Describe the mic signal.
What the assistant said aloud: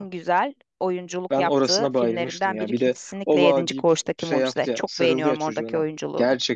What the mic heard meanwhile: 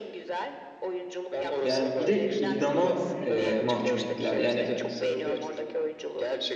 both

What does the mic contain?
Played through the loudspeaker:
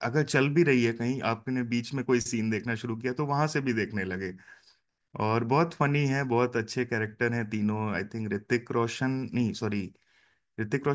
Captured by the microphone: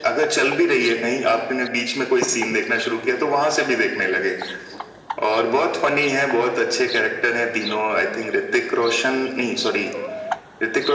echo only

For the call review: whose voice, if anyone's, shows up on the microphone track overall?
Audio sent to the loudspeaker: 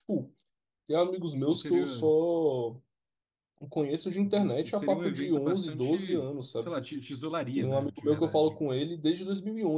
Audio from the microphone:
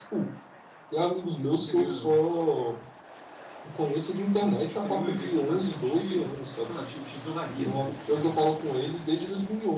echo only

